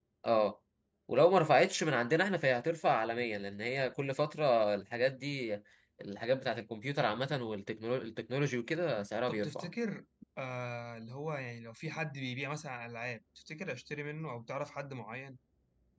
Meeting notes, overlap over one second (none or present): none